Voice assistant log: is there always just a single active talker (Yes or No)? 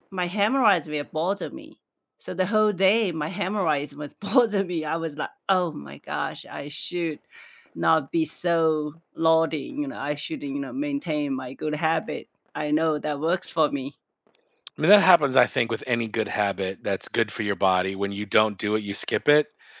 Yes